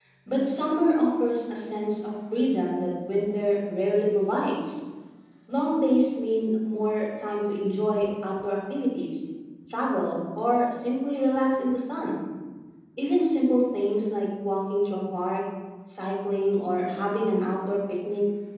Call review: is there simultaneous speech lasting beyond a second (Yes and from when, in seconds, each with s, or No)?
No